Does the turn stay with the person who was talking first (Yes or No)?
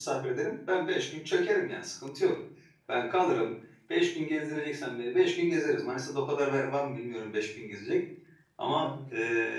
Yes